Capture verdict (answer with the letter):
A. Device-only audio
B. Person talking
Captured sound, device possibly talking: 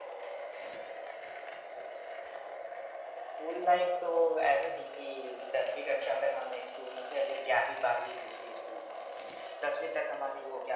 A